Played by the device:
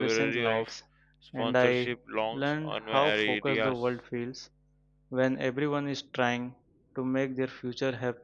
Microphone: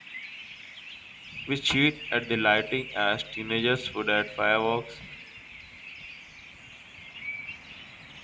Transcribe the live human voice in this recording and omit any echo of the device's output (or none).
We cheat at the lighting as teenagers would at fireworks,